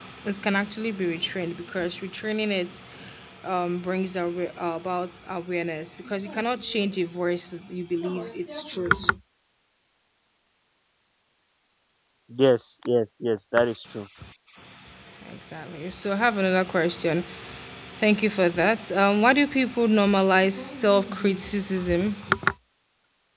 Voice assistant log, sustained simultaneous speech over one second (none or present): none